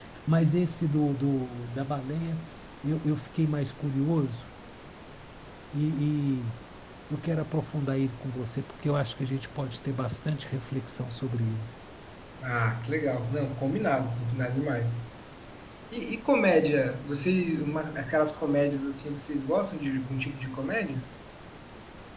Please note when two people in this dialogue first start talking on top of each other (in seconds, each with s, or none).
none